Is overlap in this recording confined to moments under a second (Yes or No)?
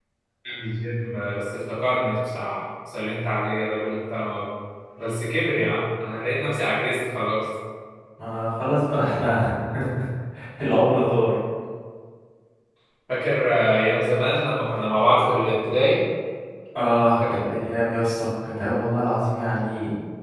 Yes